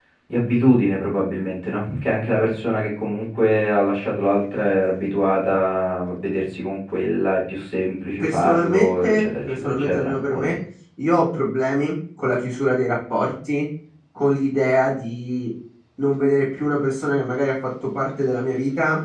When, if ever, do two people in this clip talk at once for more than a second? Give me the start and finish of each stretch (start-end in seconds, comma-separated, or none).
8.2-10.5